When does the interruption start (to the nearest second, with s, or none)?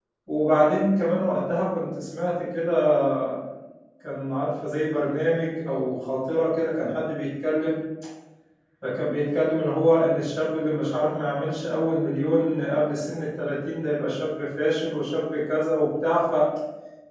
none